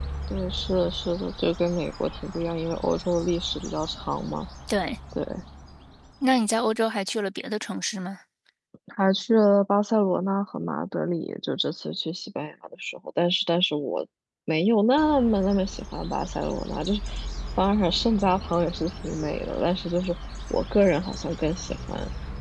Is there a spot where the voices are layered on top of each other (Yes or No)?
No